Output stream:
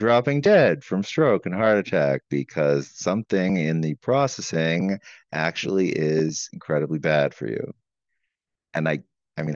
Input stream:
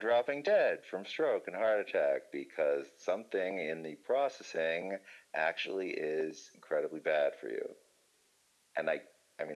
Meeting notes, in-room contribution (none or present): none